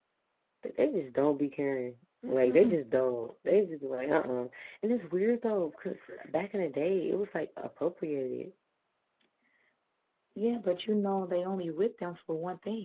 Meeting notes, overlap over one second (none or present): none